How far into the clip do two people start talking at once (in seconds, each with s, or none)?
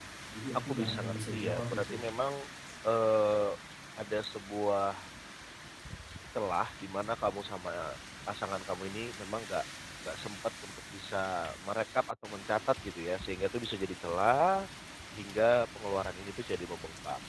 0.7 s